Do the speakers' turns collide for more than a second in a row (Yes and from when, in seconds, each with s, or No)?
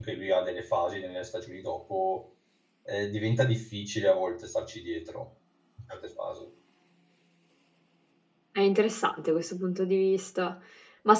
No